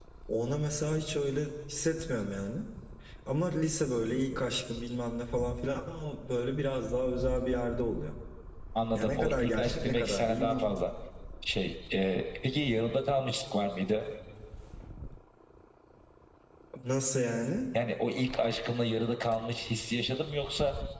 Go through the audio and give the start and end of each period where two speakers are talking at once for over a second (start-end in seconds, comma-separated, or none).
9.0-10.6